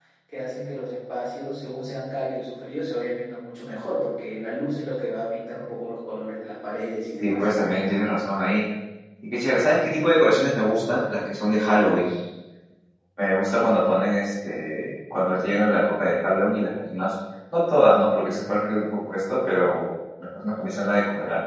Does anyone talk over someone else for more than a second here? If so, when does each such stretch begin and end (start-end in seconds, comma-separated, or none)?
none